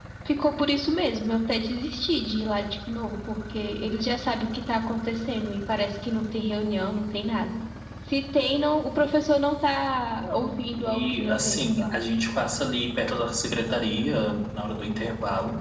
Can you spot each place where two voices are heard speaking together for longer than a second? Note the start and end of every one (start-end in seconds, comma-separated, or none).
10.2-11.9